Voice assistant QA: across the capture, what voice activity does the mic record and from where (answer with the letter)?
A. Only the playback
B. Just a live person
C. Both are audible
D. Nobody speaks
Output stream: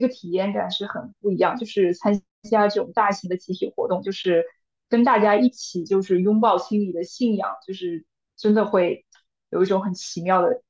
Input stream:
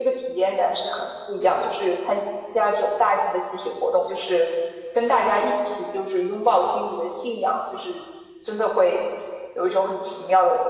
A